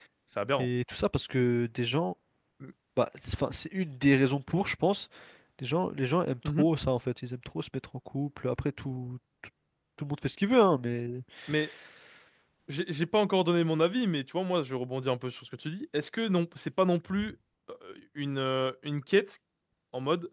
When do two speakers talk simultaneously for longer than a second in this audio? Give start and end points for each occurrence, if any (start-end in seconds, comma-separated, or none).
none